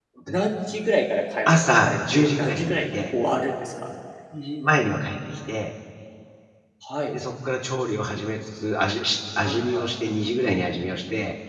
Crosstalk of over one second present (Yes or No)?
Yes